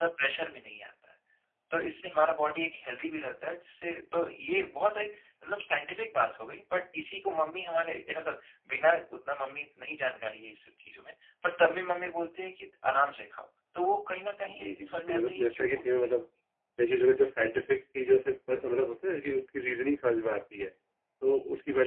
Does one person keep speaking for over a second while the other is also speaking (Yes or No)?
Yes